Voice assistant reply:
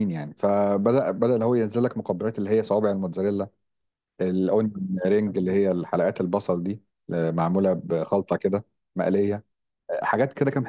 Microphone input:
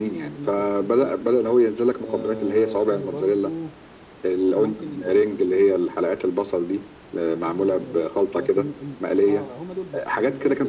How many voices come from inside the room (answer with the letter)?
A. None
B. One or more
B